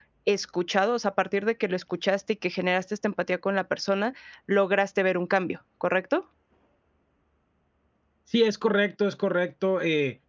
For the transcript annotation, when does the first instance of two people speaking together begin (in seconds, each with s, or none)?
none